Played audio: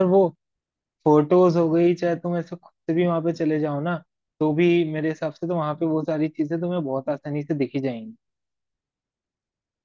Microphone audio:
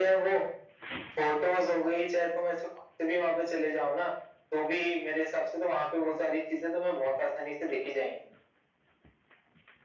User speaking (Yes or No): No